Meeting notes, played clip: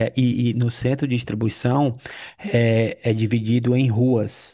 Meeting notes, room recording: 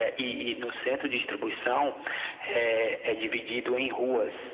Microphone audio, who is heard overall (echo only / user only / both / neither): echo only